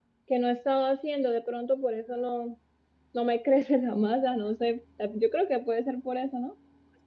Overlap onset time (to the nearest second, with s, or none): none